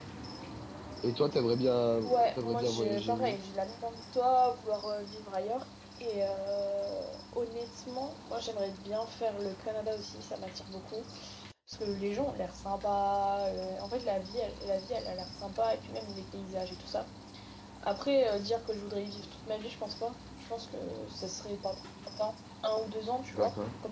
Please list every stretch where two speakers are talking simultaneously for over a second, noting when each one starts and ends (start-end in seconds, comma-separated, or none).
2.0-3.4